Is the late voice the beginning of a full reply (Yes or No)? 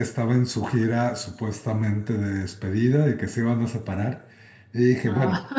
No